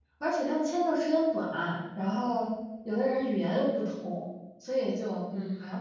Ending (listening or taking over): listening